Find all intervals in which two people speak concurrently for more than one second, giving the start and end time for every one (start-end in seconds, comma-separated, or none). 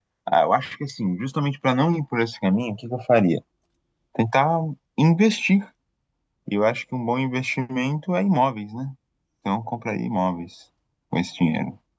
none